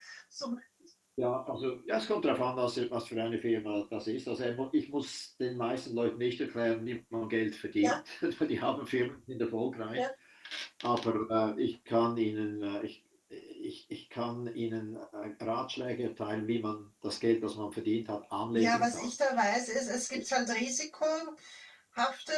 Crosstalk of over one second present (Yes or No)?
No